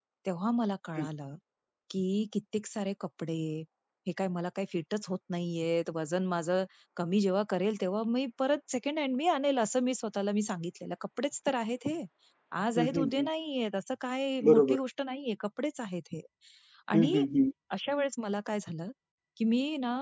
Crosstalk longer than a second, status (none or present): none